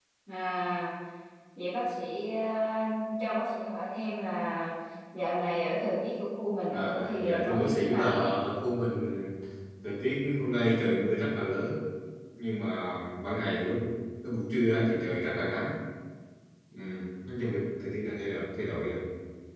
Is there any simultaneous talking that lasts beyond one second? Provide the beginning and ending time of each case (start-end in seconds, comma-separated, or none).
6.7-8.3